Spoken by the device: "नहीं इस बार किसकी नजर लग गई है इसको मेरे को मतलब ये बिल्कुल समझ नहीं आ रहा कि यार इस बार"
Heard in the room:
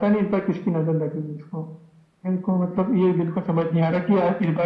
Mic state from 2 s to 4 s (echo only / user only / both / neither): echo only